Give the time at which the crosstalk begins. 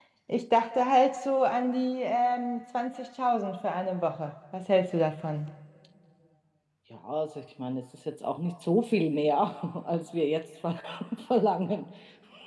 none

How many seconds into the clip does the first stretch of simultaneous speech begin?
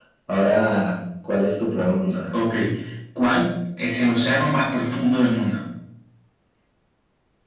none

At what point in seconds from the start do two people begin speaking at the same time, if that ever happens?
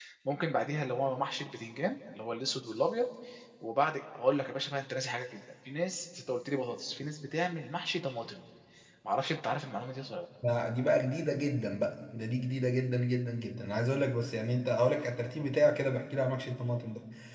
none

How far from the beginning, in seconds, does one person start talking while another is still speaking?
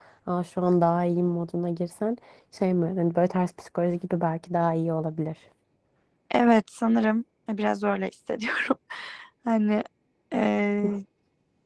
none

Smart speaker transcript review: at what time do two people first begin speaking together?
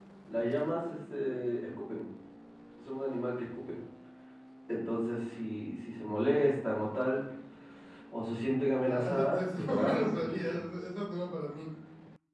8.8 s

